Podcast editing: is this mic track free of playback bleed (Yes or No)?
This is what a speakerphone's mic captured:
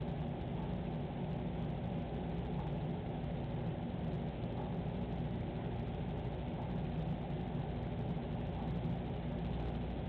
Yes